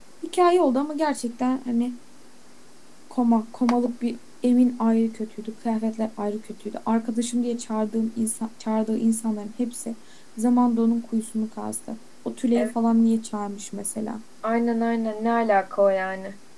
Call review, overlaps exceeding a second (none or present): none